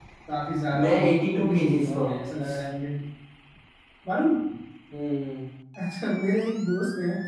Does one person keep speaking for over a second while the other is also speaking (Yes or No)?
Yes